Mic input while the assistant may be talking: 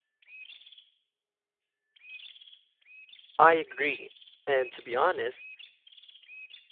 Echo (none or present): none